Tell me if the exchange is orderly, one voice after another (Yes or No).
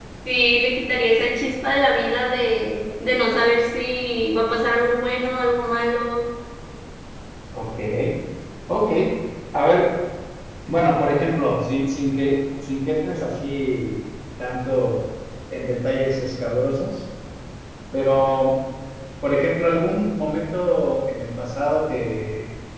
Yes